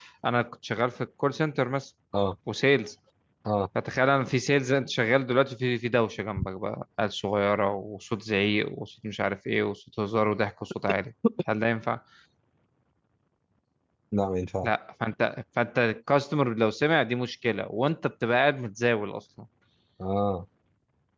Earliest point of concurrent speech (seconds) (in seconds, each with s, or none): none